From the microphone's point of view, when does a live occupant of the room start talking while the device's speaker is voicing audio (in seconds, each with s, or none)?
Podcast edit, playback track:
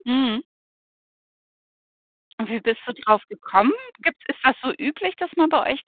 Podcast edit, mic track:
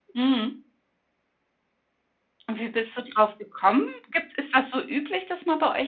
none